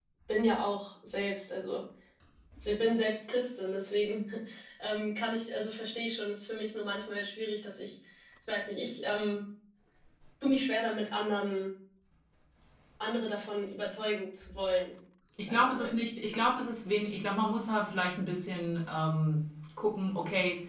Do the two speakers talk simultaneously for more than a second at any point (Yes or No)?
No